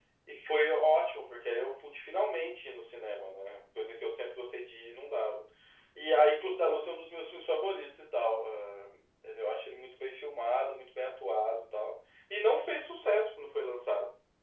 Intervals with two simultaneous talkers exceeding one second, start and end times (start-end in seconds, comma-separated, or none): none